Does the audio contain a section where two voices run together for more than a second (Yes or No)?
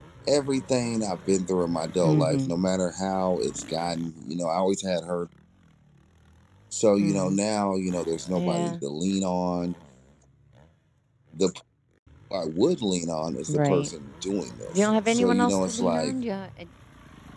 Yes